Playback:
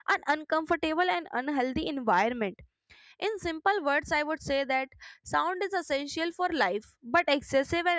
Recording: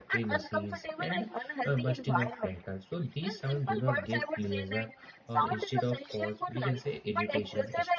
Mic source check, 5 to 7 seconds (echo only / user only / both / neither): both